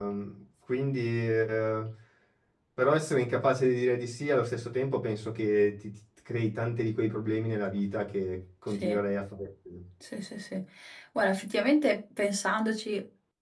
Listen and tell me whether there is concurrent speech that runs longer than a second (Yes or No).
No